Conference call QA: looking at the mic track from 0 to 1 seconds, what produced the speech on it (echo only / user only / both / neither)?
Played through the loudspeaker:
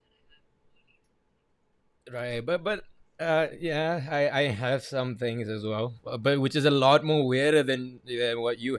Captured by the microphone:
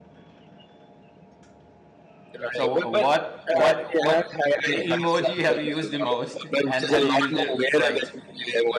neither